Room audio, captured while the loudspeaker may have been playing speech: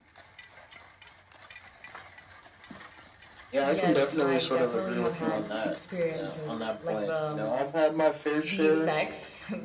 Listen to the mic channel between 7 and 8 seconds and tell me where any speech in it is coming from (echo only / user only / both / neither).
both